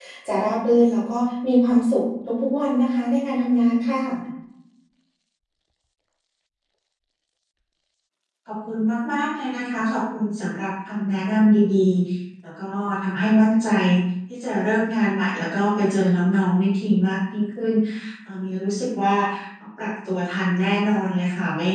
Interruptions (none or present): none